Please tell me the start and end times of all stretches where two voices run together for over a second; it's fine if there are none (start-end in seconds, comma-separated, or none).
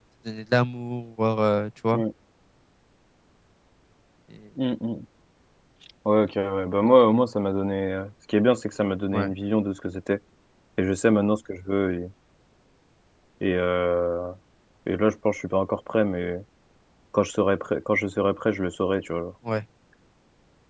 none